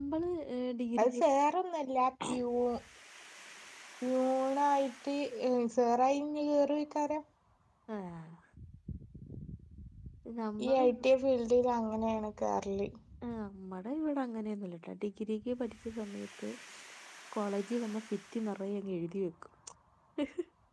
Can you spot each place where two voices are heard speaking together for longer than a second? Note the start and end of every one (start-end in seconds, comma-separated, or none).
none